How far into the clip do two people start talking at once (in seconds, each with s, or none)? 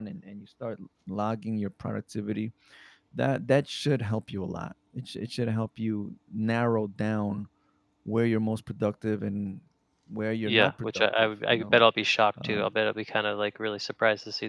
10.4 s